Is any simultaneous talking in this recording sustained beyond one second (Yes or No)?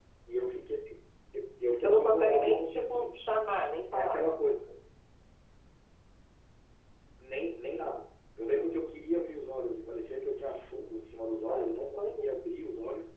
Yes